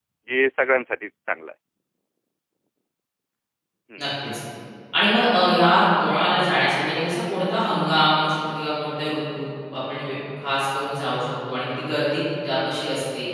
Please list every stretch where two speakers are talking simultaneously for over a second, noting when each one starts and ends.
none

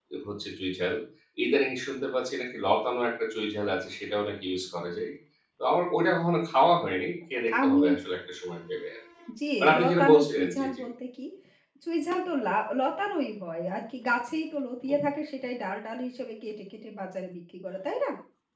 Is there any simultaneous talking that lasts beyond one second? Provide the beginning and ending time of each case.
9.6-10.8

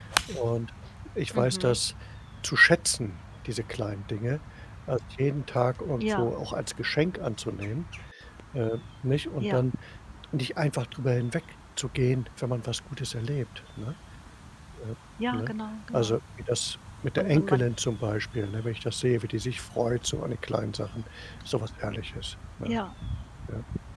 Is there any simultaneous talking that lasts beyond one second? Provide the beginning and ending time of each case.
none

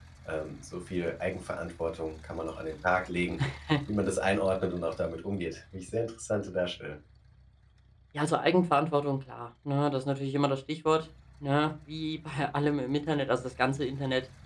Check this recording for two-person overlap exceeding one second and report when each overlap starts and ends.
none

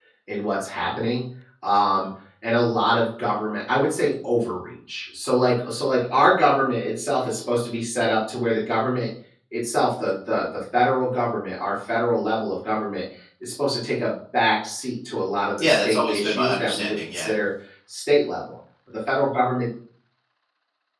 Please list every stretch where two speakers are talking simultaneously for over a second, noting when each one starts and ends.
15.6-17.3

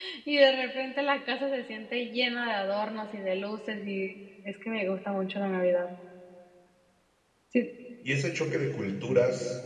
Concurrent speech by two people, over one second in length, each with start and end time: none

